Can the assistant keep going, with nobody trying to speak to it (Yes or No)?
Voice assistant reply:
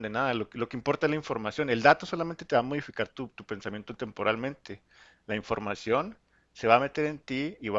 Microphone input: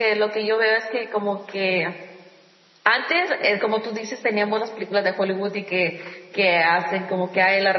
No